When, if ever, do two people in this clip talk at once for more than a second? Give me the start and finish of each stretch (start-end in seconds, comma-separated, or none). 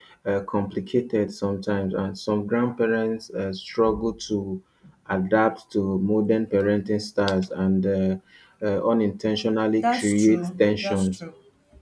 9.8-11.1